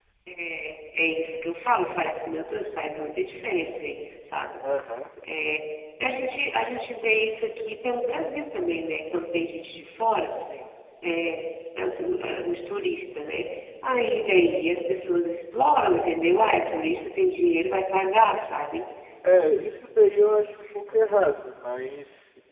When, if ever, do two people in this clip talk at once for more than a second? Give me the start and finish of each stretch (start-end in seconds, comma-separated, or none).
none